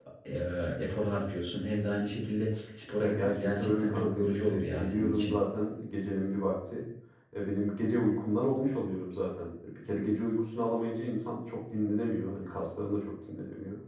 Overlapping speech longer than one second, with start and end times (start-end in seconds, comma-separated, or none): 3.0-5.4